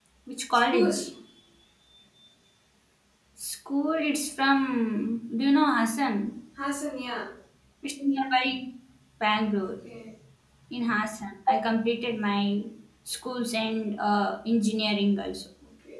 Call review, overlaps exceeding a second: none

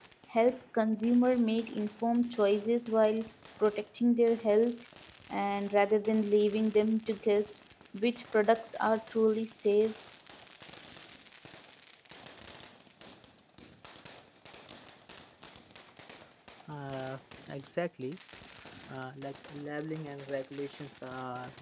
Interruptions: none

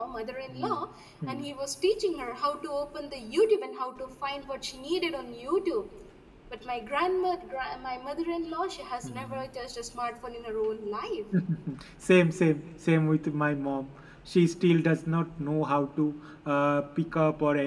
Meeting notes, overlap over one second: none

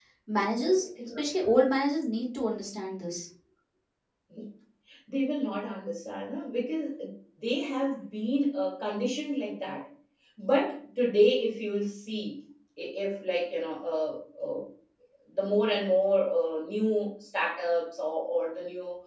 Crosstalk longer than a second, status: none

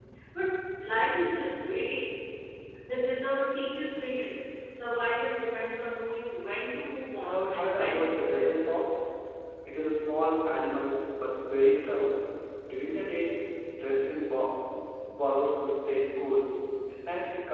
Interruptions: present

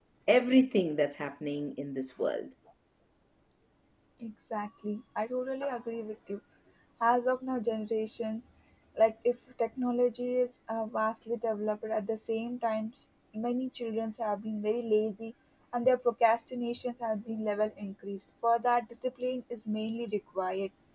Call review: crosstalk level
none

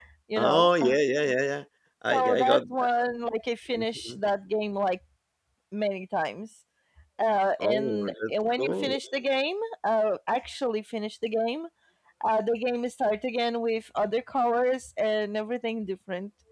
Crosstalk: present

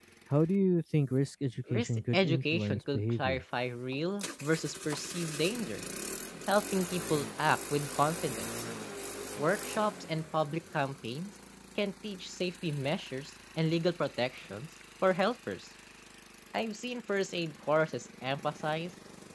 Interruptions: present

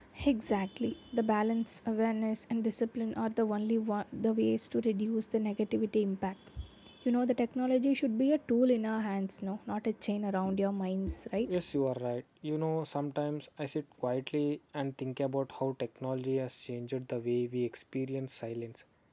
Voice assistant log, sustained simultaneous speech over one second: none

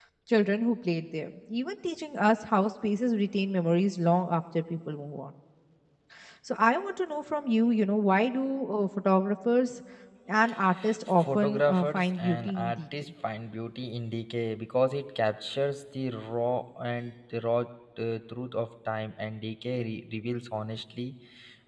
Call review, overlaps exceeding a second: present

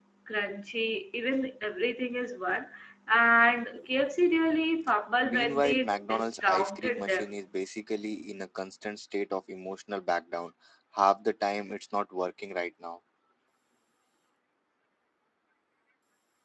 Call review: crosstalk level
present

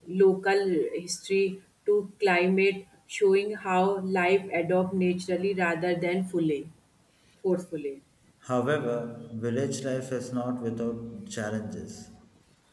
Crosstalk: none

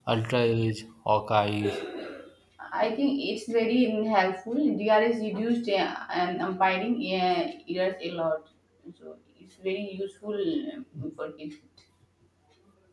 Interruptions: none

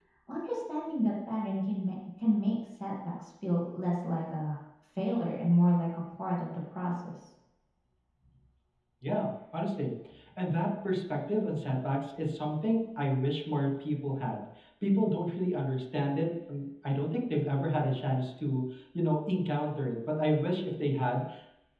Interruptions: none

